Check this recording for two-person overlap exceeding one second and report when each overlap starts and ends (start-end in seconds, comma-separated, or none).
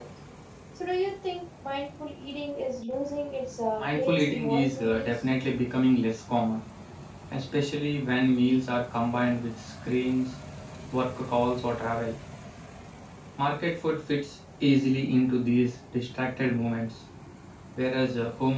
3.8-5.1